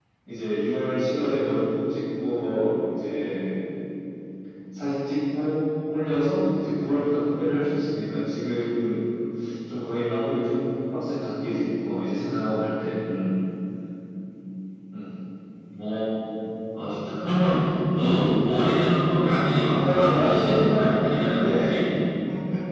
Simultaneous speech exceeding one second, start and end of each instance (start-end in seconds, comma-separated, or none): 19.7-21.5